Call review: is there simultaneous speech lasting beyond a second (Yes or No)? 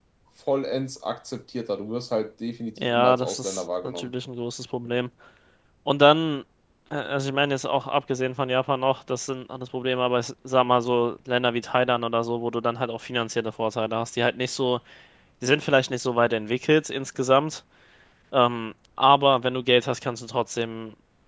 Yes